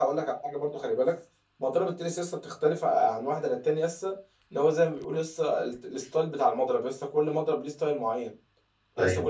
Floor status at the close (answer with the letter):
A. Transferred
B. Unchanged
B